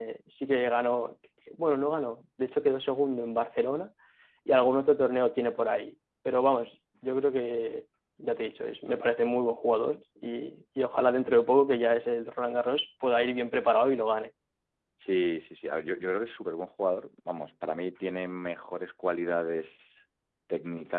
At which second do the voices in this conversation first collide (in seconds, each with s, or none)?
none